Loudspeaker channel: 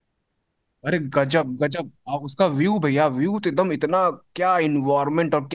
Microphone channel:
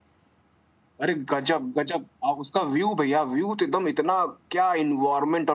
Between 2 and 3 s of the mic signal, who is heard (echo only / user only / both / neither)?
echo only